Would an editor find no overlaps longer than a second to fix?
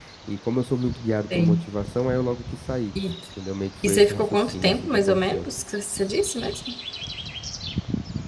No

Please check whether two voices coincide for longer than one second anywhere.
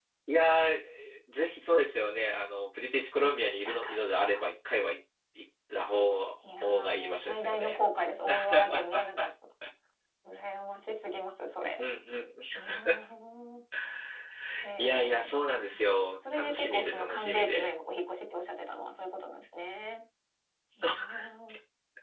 Yes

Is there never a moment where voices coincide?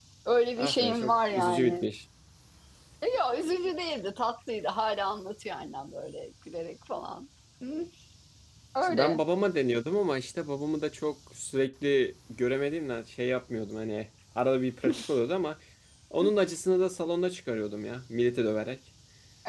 No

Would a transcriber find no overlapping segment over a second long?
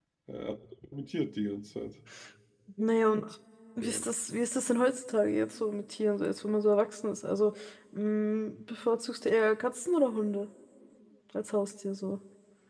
Yes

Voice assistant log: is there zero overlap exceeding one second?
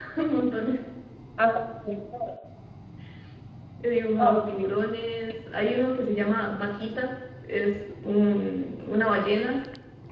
Yes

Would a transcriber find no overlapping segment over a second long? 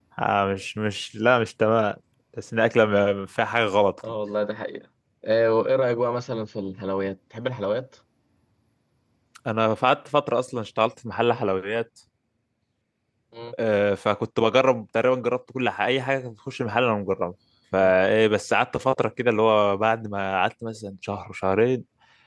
Yes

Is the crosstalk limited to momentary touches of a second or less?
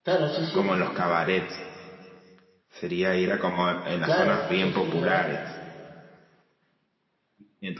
No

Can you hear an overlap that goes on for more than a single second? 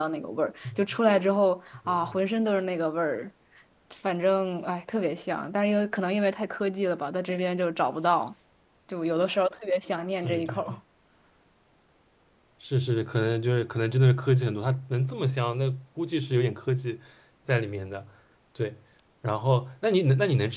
No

